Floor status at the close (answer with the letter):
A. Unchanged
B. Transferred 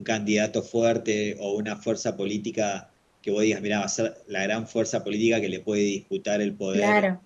B